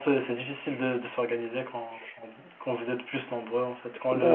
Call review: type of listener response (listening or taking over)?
listening